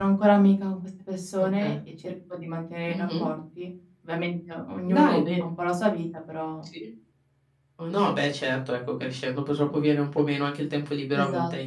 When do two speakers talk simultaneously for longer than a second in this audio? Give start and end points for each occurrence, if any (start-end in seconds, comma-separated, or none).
none